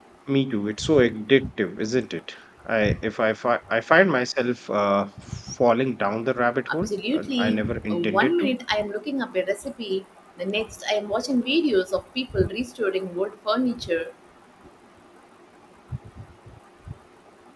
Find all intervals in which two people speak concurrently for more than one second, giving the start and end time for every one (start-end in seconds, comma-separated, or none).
6.7-8.6